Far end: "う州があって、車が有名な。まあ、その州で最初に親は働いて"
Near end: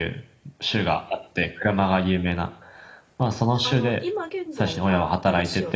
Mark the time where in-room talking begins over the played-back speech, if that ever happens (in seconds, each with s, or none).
3.6 s